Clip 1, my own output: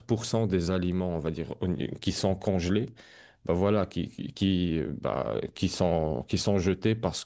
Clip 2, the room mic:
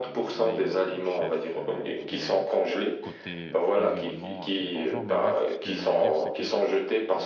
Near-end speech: present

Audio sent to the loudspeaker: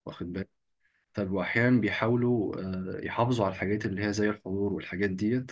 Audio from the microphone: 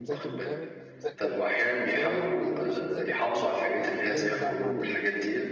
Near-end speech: present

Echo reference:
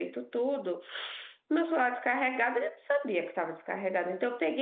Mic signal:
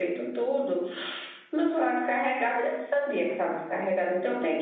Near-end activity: none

